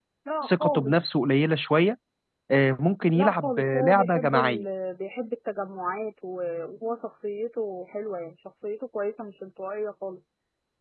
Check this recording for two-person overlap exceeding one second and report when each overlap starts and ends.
3.1-4.7

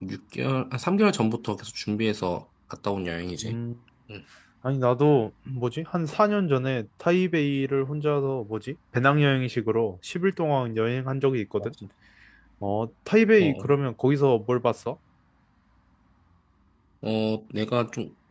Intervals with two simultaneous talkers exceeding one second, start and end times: none

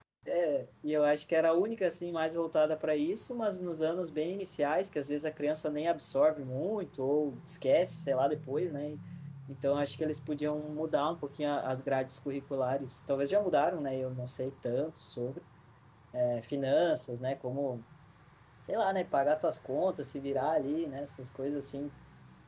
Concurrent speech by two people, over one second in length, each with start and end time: none

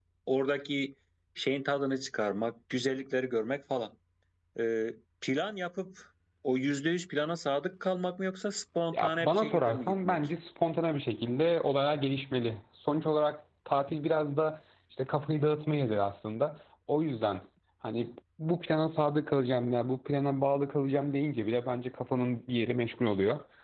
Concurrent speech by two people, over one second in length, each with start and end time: 8.9-10.3

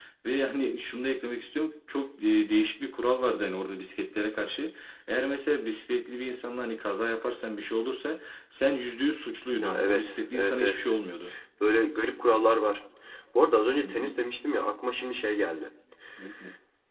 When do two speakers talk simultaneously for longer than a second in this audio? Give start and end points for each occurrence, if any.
9.6-10.9

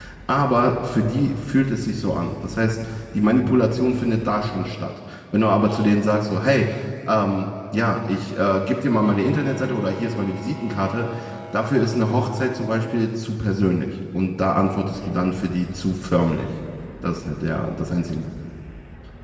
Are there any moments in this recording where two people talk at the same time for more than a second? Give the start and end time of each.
none

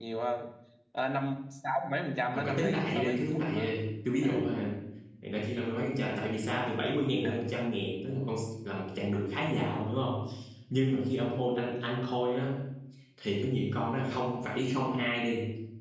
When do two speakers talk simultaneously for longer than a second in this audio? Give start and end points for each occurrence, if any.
2.2-3.7

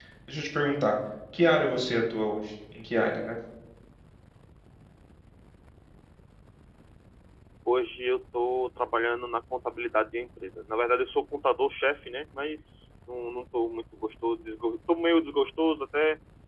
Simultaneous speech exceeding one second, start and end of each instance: none

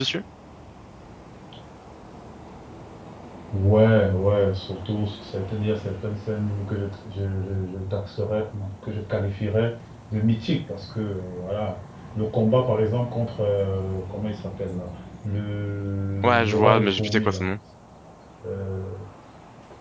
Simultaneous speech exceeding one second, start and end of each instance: 16.2-17.5

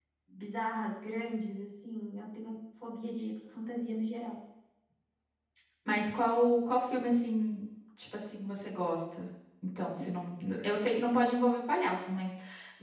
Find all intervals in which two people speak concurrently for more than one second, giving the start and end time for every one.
none

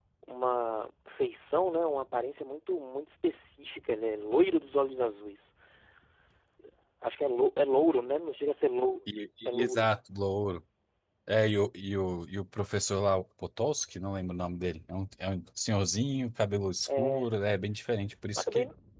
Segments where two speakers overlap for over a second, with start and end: none

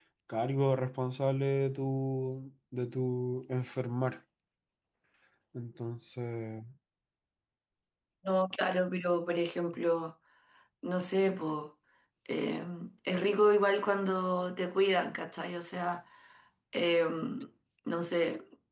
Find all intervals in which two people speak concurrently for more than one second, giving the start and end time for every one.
none

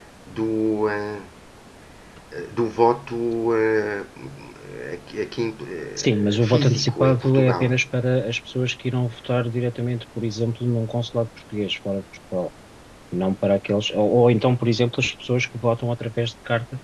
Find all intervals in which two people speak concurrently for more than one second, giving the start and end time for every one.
6.0-7.7

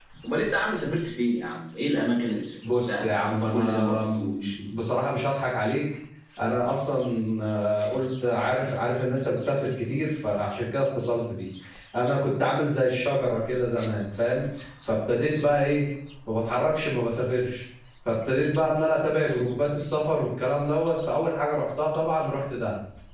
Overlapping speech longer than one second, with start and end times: 2.7-4.5

